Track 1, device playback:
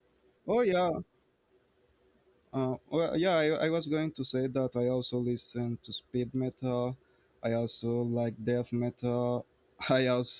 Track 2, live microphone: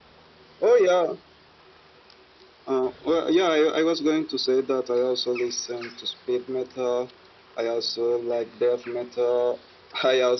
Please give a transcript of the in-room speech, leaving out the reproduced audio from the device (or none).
none